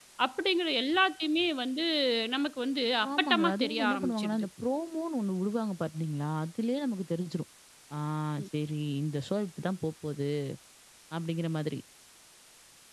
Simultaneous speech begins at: 3 s

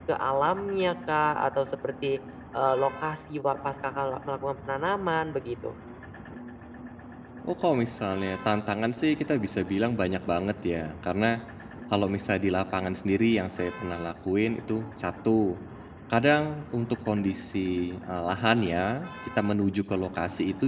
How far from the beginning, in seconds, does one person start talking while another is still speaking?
none

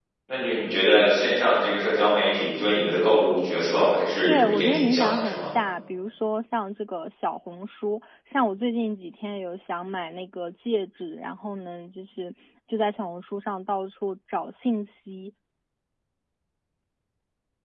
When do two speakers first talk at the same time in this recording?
4 s

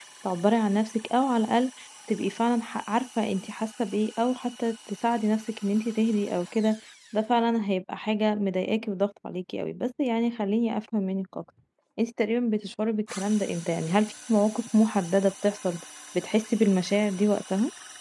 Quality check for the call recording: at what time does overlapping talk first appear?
none

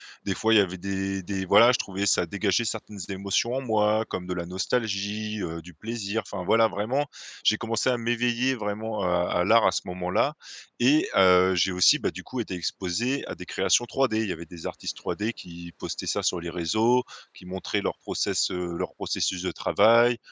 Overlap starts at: none

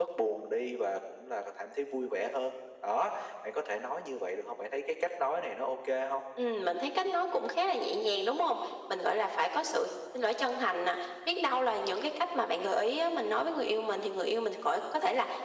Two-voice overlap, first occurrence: none

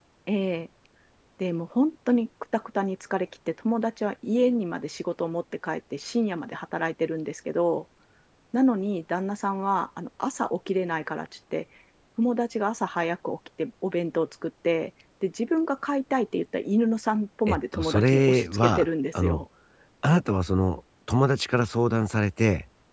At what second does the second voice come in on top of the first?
17 s

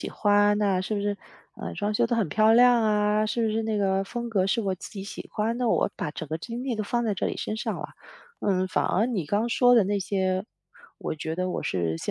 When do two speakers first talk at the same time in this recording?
none

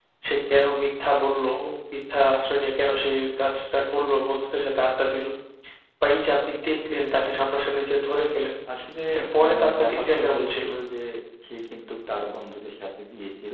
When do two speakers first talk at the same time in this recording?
9 s

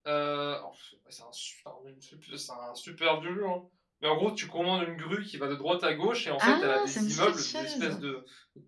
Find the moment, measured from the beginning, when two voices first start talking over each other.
6 s

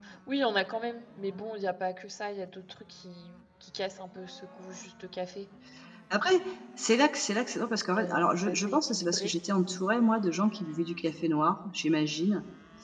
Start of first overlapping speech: 8 s

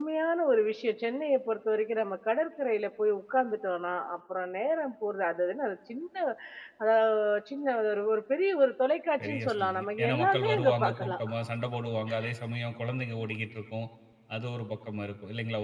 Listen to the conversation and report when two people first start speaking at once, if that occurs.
9 s

